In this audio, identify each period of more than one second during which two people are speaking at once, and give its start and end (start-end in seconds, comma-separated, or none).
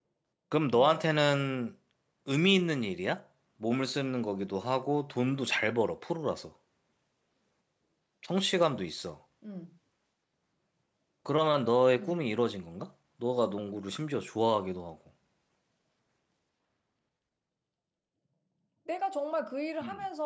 none